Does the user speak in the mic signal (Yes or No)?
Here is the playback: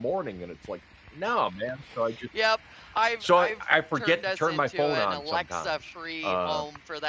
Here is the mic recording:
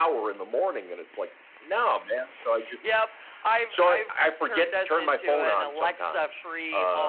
No